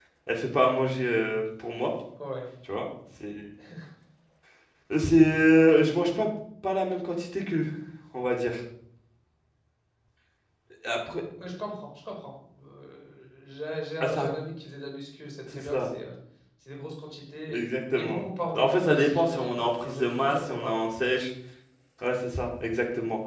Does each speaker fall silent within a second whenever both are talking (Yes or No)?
No